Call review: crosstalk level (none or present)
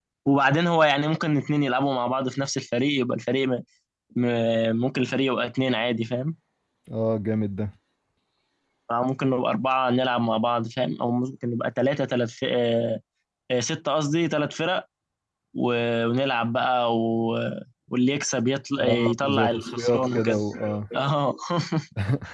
present